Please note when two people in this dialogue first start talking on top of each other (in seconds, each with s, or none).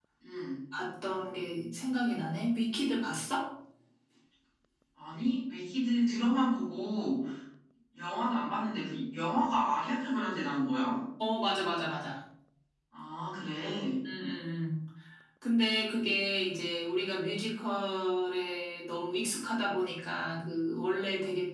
none